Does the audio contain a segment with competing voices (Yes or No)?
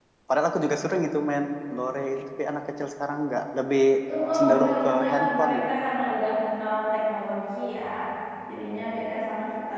Yes